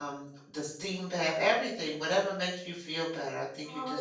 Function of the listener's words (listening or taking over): taking over